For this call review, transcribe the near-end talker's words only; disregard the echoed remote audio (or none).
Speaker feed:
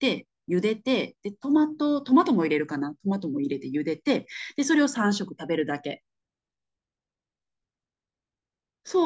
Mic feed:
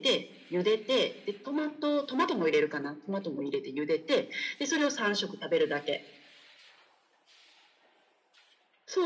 none